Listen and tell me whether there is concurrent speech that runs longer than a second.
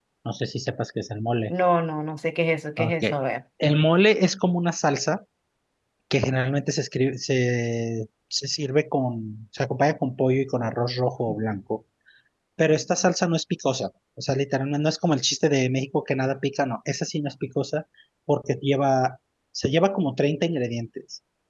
No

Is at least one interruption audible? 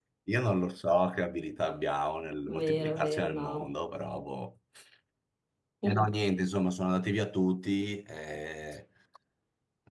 Yes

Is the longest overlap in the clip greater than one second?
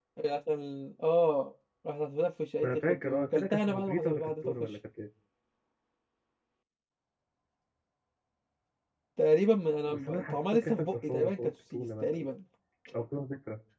Yes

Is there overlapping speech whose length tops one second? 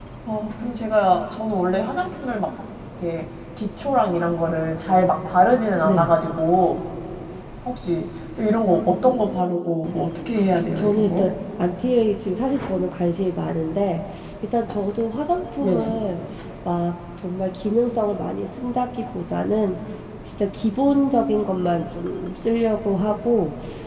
No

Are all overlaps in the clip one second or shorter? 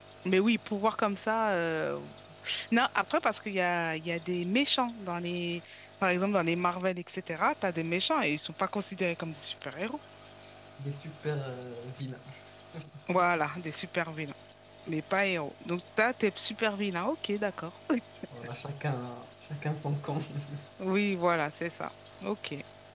Yes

